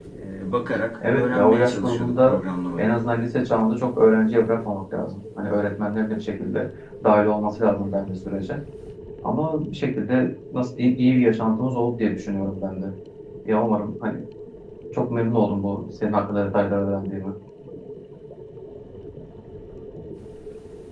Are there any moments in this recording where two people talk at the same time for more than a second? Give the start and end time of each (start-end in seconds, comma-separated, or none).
1.1-2.4